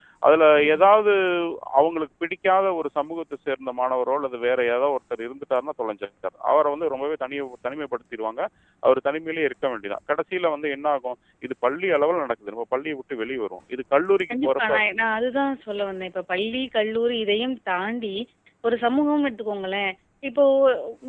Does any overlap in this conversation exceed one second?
No

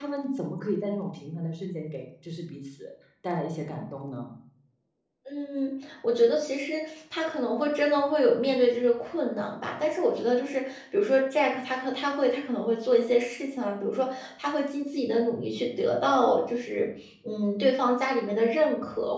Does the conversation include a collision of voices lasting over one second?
No

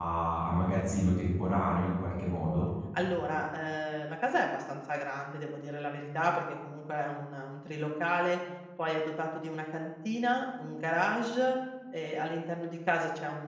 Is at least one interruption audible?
No

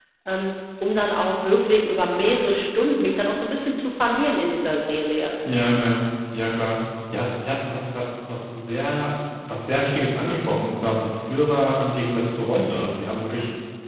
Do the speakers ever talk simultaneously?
No

